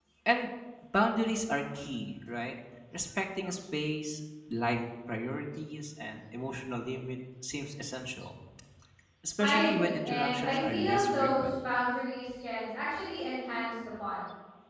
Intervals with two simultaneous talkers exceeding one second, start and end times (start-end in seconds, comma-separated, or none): 9.4-11.5